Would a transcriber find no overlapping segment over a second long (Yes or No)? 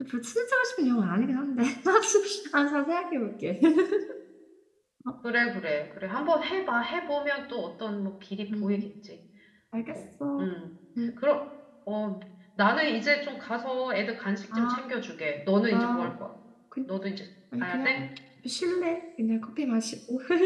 Yes